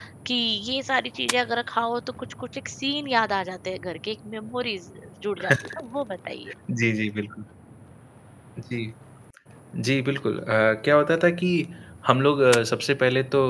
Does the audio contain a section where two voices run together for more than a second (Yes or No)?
No